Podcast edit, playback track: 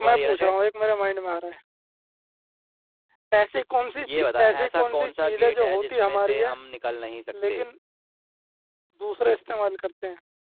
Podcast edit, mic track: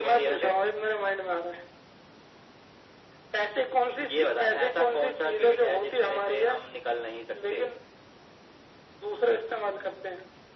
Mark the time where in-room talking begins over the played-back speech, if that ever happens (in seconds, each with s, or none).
none